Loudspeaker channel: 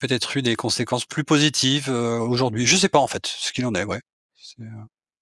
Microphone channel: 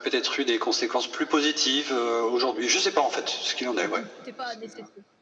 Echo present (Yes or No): Yes